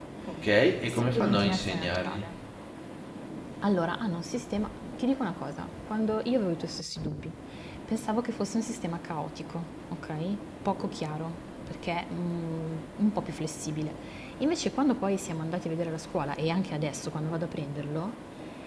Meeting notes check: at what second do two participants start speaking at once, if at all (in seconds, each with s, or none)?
0.9 s